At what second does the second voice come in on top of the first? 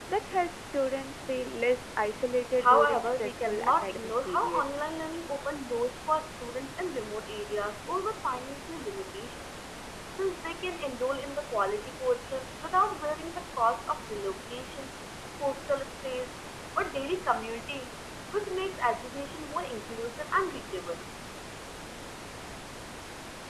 2.6 s

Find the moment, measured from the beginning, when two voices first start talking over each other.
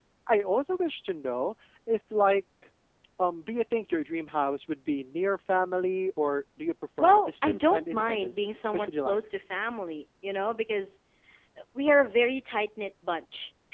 7.0 s

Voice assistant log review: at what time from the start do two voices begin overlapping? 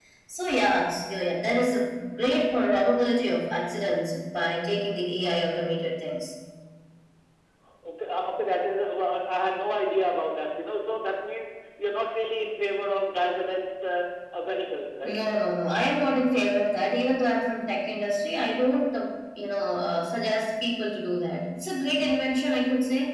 none

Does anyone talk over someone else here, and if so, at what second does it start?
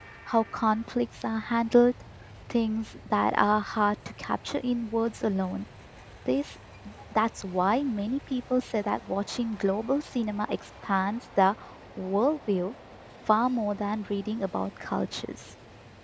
none

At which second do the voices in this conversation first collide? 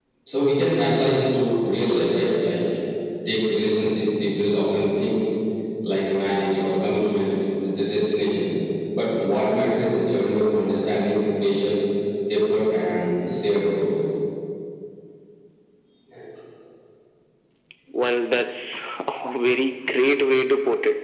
none

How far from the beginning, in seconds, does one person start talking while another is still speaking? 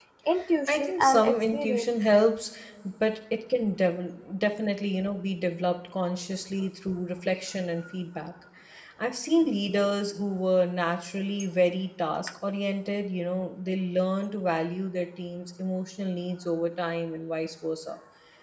0.7 s

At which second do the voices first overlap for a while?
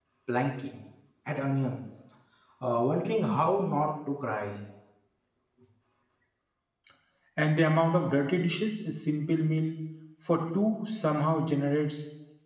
none

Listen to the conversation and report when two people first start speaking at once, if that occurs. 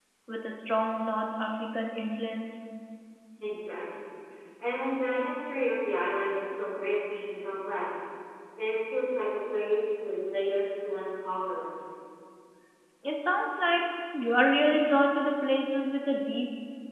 none

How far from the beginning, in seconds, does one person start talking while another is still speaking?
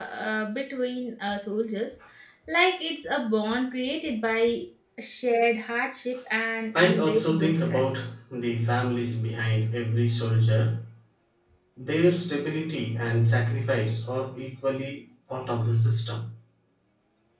6.7 s

